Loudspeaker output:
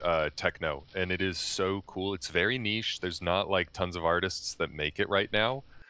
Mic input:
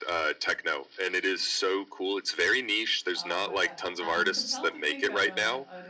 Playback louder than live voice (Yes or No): Yes